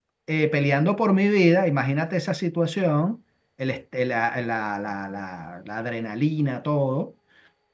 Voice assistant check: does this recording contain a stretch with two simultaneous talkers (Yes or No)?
No